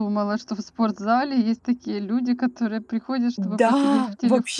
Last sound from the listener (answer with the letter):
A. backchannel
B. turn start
B